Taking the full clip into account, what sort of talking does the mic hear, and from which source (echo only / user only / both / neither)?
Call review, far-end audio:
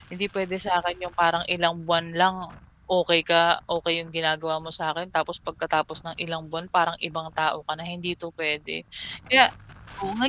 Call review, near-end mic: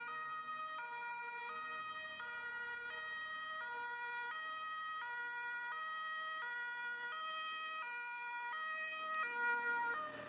neither